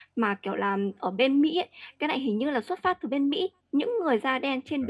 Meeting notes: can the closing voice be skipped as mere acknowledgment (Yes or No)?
Yes